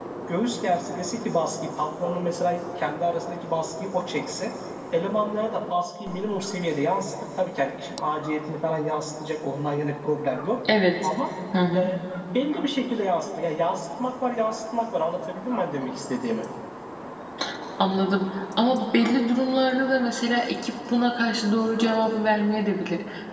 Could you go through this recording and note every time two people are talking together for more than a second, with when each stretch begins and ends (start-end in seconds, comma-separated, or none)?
none